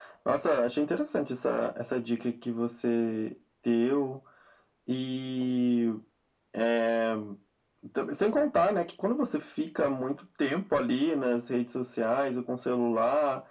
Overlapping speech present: No

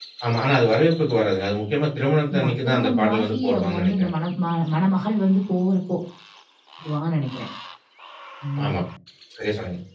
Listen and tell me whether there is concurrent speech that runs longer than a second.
Yes, from 2.3 s

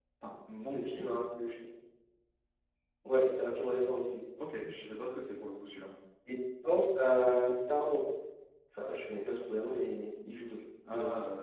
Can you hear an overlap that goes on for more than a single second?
No

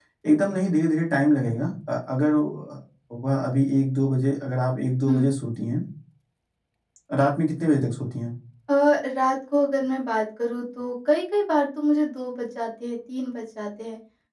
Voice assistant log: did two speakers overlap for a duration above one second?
No

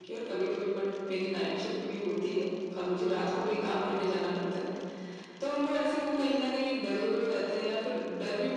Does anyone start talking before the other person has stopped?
No

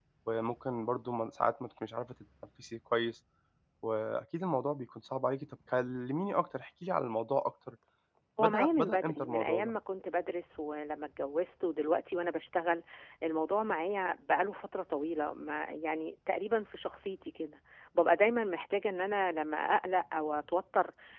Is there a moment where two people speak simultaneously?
Yes, from 8.4 s

